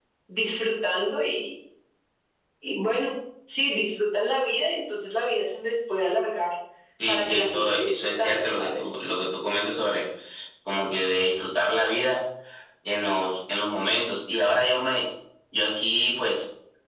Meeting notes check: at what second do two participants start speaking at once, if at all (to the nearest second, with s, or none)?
7 s